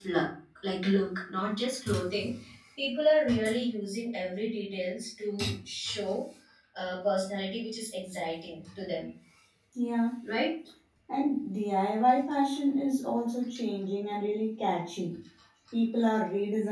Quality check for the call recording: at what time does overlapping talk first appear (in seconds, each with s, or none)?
none